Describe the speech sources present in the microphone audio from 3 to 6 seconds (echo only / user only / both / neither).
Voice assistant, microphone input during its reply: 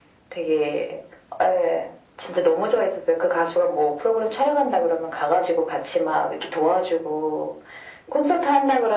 echo only